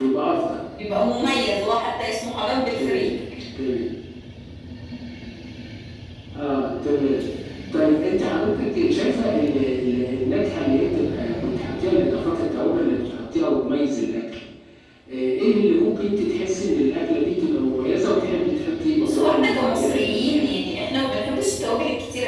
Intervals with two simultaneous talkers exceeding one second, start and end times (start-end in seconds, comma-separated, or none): 19.0-20.5